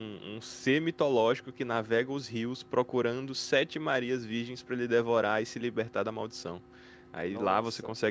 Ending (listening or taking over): listening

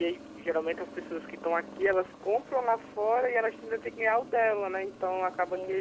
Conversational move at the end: listening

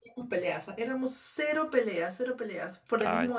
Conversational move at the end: listening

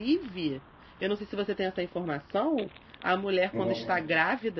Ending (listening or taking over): listening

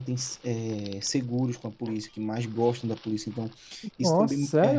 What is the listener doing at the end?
listening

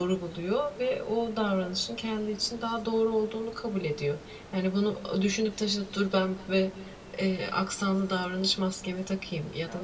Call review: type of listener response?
listening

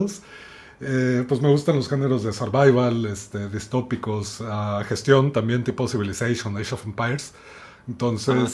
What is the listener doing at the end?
listening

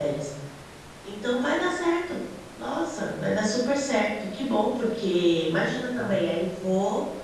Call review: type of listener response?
listening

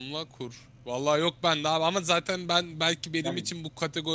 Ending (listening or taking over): listening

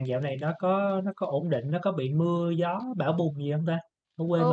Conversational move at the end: taking over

